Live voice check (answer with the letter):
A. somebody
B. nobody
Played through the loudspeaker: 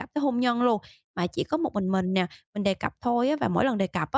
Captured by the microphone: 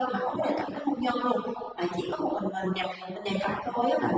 B